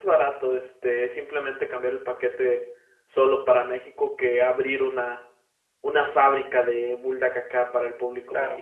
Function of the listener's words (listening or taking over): taking over